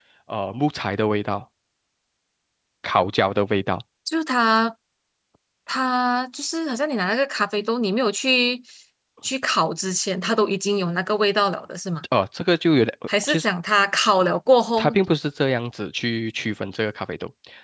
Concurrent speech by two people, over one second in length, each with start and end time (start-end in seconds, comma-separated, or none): none